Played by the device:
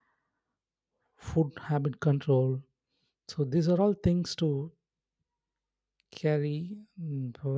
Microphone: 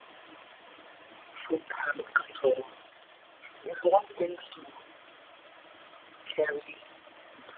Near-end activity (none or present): none